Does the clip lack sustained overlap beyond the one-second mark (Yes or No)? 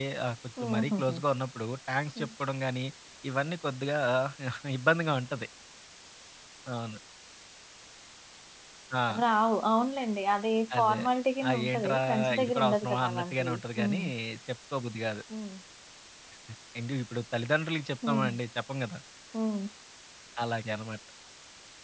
No